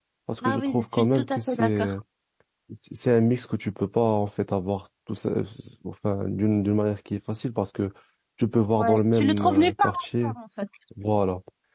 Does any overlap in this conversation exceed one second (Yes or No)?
Yes